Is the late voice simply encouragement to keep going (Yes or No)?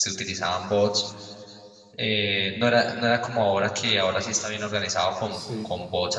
Yes